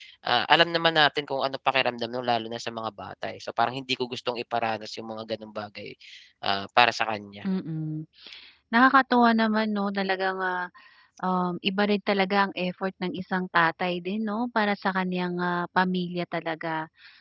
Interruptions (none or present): none